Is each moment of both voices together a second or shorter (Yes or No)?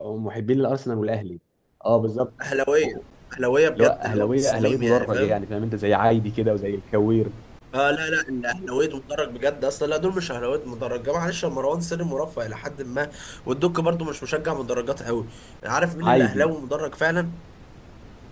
No